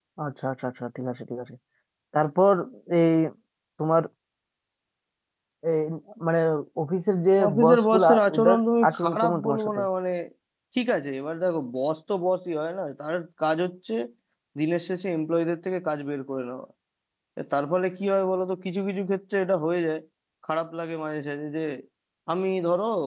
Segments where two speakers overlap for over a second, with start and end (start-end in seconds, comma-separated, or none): 7.5-9.8